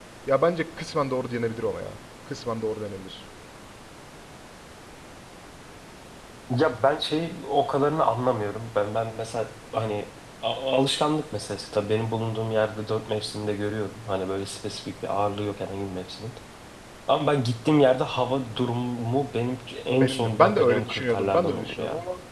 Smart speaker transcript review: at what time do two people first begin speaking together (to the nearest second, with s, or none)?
20 s